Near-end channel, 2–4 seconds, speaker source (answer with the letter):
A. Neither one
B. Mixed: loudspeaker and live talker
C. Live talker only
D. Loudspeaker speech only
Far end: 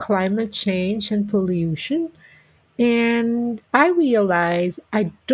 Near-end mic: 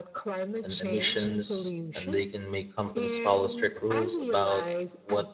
B